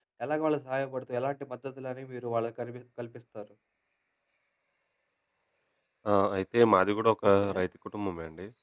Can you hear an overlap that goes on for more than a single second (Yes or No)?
No